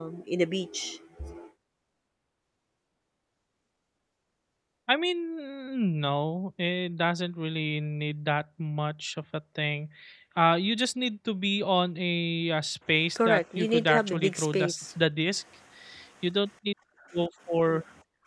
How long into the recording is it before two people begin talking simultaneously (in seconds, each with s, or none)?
13.2 s